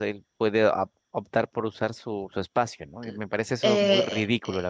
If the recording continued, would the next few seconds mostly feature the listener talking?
Yes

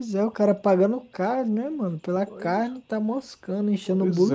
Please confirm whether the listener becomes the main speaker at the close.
Yes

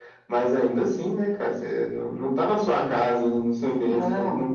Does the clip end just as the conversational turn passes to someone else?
No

